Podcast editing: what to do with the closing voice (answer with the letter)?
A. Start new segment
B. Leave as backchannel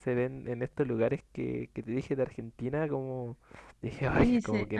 A